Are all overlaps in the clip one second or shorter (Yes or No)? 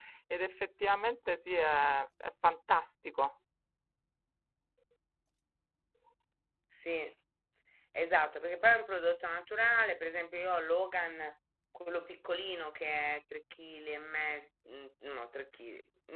Yes